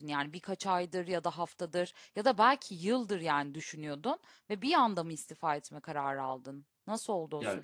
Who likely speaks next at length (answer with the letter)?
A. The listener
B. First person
A